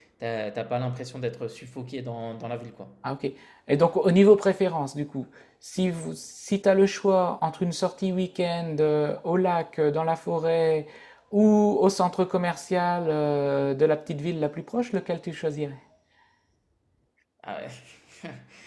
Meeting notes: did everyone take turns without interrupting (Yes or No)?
Yes